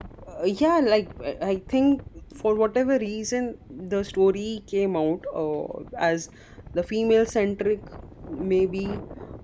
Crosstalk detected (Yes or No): No